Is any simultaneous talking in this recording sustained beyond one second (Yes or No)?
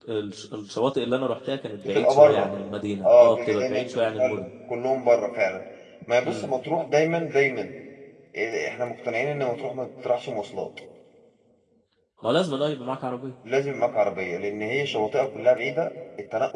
Yes